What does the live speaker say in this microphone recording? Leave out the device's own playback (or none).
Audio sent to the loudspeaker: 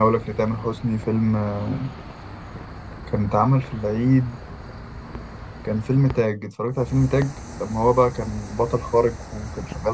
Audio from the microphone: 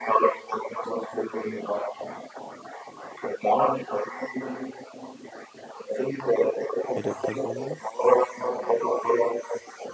ايه ده بجد والله